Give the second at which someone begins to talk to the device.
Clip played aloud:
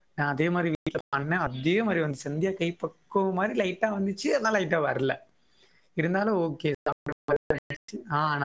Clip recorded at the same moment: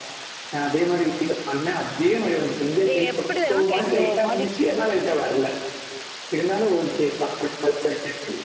2.9 s

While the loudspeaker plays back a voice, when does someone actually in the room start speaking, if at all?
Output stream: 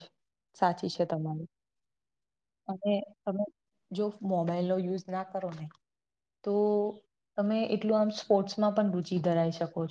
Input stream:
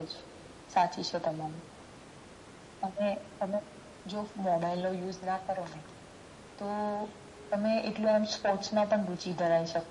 none

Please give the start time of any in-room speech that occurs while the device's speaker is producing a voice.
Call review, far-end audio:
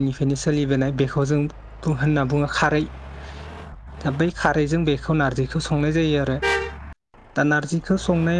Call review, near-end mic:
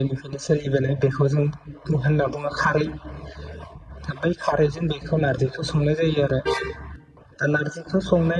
none

